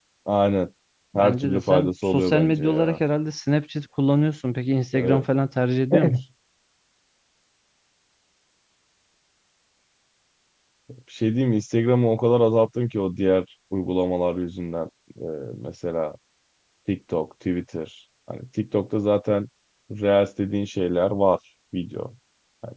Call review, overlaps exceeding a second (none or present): present